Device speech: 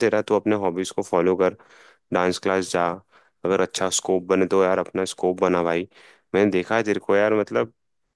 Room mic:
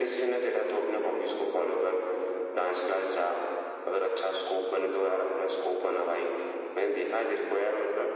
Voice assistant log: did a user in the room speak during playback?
No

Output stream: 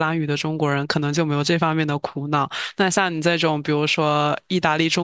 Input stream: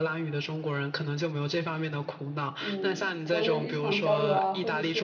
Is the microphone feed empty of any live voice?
No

